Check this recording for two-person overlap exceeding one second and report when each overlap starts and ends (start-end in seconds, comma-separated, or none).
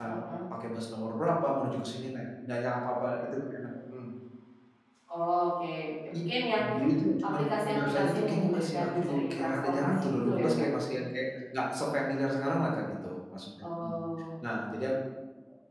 7.3-10.5